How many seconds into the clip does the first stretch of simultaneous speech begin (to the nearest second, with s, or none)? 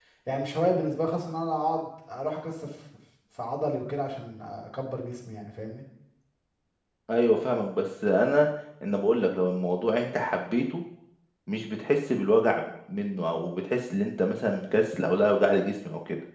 none